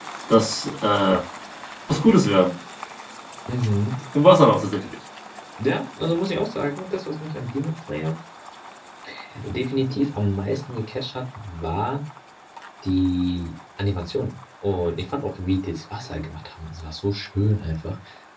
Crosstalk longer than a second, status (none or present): none